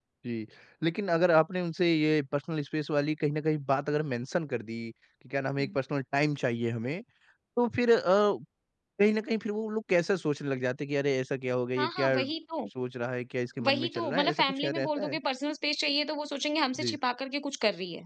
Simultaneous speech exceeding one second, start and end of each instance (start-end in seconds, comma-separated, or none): 13.7-15.2